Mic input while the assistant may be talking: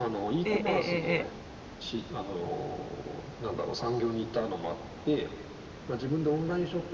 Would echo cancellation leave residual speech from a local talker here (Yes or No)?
Yes